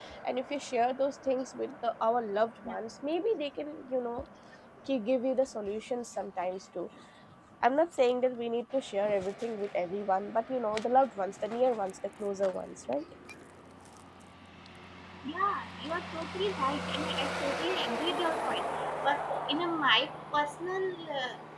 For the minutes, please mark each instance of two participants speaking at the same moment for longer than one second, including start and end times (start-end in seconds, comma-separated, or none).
none